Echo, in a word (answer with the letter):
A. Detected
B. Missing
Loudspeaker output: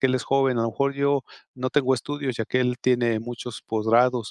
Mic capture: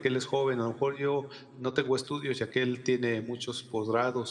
A